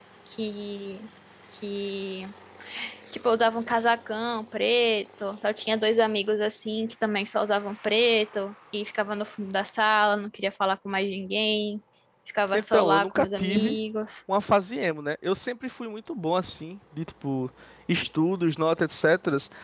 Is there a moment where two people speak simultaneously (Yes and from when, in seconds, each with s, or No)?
Yes, from 12.5 s